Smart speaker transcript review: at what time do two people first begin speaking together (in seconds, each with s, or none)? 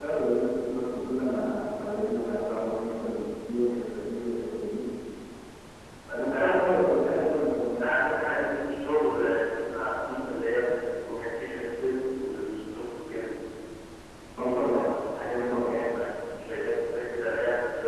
6.2 s